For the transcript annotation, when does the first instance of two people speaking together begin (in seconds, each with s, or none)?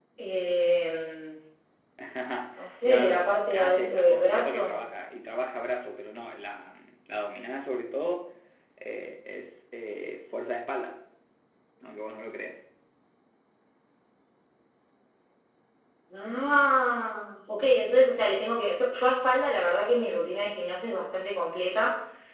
2.8 s